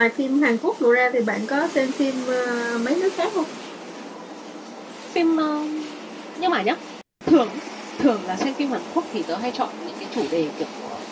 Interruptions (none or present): none